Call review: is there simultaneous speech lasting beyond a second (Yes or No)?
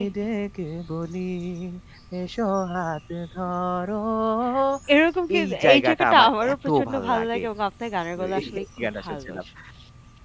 Yes